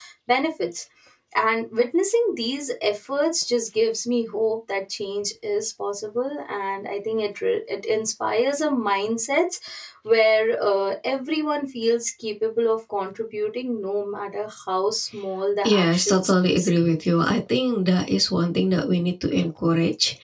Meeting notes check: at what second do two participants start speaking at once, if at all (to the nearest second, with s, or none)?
16 s